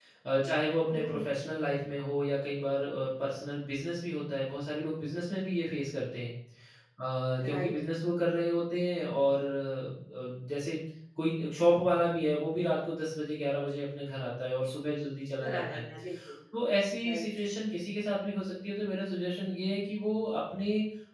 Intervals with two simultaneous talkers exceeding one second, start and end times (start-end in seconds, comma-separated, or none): none